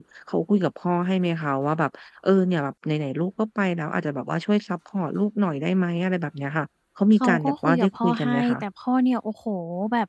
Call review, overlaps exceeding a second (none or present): present